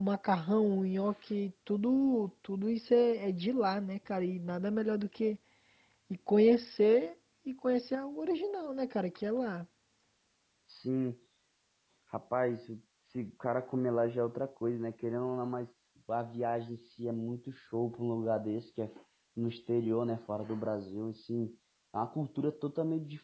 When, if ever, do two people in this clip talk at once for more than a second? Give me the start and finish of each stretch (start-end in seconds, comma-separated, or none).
none